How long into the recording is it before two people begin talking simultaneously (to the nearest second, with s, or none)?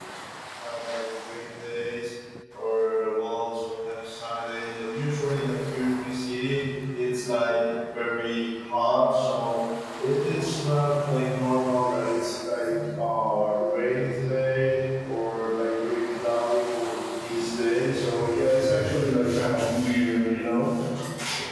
none